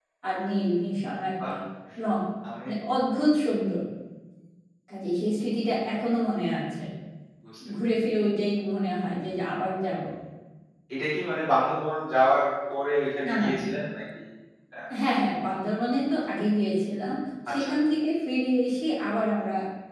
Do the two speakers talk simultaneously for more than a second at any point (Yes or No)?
No